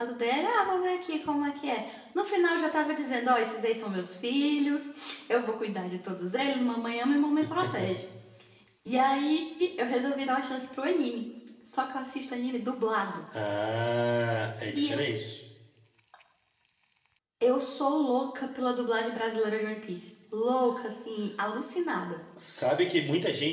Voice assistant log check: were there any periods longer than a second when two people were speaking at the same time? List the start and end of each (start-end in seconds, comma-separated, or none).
none